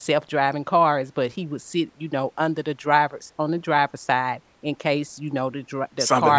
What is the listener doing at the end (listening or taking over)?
taking over